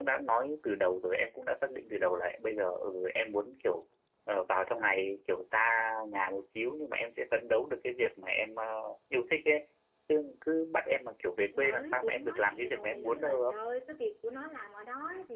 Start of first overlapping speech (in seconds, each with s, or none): 11.5 s